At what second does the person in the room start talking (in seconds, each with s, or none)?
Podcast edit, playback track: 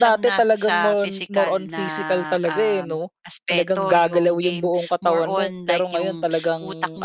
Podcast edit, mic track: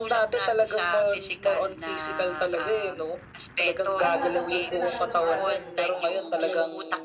3.9 s